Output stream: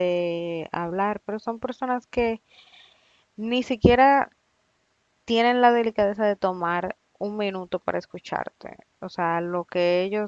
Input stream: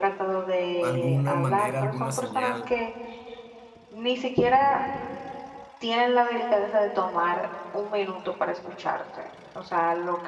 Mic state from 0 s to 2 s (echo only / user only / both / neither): both